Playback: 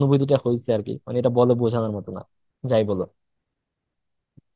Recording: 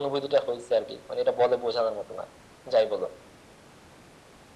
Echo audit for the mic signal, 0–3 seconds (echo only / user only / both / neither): echo only